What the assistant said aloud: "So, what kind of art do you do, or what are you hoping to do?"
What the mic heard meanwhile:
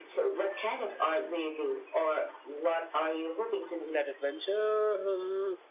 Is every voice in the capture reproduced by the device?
No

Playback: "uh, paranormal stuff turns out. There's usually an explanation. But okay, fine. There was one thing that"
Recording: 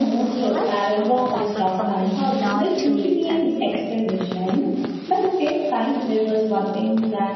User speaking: Yes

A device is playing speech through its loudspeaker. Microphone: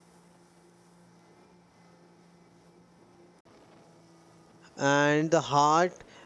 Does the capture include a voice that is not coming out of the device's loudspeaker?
Yes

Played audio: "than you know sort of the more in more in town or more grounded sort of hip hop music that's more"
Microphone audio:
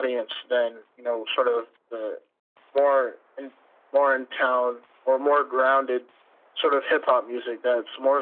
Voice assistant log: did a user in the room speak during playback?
No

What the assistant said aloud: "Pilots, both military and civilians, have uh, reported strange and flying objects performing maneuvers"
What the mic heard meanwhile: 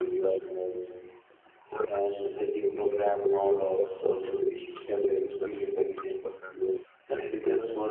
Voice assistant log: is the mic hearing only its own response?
No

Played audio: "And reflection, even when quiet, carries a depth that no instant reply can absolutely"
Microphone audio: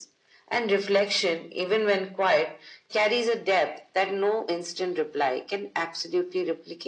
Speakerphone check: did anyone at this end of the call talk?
No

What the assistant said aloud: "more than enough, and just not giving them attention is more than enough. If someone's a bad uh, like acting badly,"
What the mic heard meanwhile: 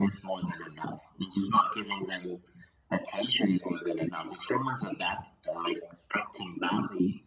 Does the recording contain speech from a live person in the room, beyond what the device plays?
No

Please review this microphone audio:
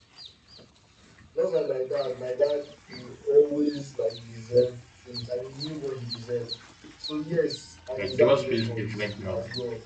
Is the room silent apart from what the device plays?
No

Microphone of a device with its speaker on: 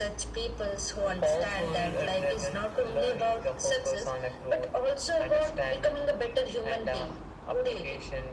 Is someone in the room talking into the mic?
No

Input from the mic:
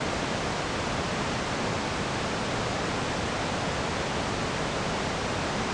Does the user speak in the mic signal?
No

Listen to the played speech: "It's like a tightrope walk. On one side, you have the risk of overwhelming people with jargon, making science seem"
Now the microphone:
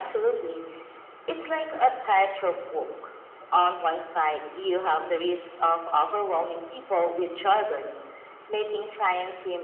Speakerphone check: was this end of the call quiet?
Yes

